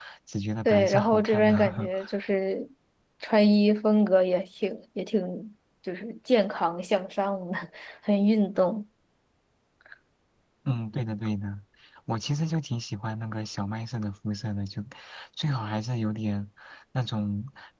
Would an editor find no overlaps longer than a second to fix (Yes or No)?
No